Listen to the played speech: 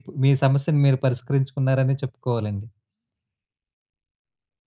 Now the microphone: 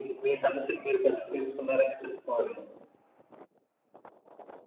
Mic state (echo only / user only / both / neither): echo only